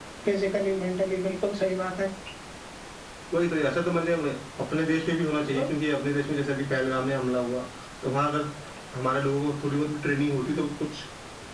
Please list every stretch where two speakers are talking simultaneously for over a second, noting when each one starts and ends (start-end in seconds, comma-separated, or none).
none